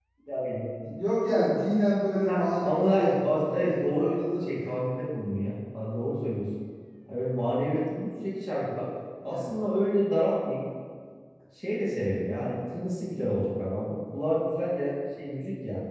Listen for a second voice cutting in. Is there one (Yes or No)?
Yes